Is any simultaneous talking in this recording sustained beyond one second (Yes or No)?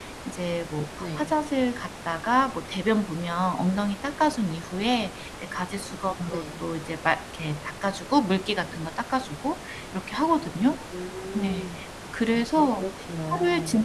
No